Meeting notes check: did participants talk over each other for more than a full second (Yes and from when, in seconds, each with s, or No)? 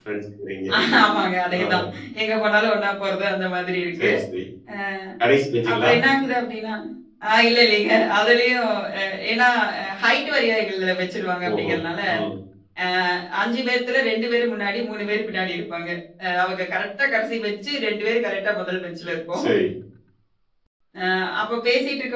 No